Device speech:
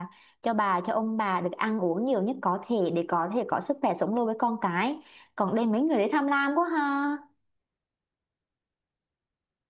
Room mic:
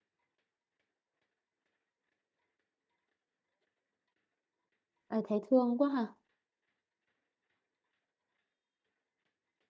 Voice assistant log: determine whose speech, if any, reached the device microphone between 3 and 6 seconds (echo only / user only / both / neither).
user only